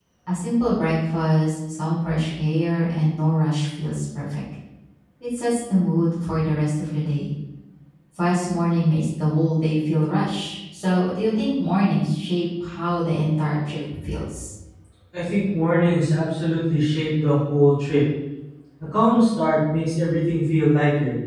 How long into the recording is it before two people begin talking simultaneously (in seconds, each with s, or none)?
none